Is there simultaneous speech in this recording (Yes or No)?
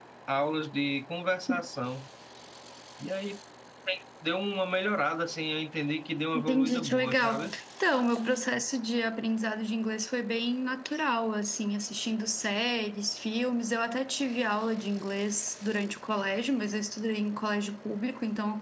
Yes